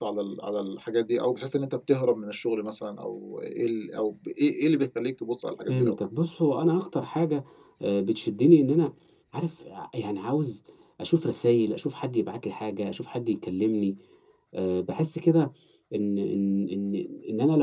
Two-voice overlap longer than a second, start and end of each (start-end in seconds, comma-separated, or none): none